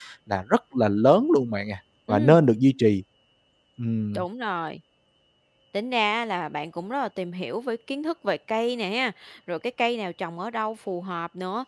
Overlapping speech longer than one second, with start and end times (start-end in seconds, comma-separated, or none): none